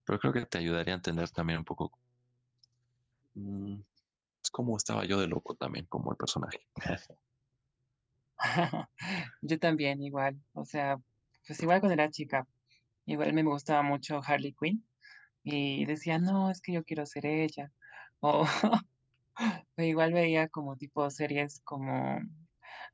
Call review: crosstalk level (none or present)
none